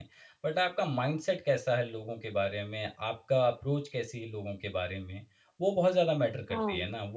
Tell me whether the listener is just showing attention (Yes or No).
No